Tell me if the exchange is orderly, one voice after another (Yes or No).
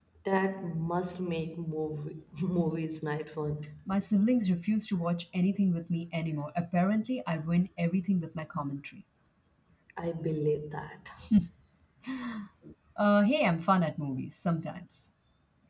Yes